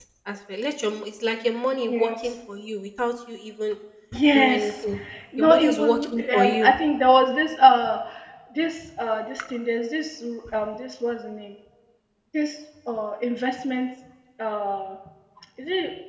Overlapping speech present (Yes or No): Yes